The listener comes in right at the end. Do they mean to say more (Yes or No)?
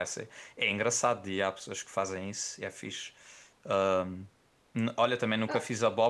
No